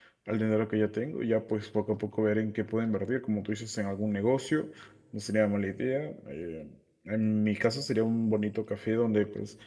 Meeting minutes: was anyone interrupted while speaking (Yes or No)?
No